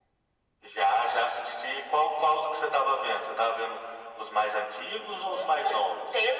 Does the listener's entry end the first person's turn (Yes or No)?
Yes